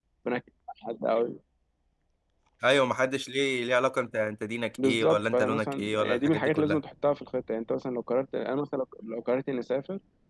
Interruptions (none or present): present